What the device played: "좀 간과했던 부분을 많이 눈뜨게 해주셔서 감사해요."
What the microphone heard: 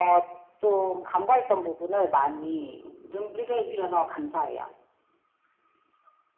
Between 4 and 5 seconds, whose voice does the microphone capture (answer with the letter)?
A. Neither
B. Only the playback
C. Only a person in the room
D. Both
B